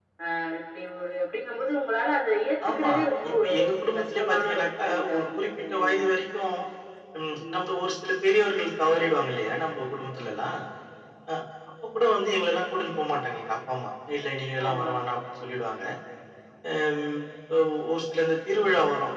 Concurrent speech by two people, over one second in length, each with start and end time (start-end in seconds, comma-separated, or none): 3.3-6.0